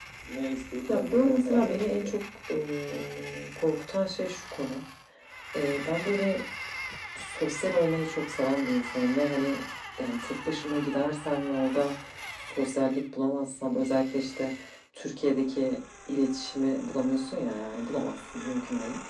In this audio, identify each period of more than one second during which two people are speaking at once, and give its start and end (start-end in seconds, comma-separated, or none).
0.9-2.2